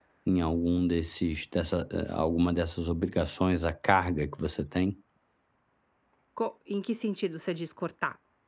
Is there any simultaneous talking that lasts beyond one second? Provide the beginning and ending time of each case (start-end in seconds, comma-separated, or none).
none